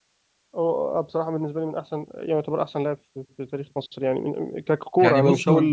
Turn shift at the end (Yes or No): Yes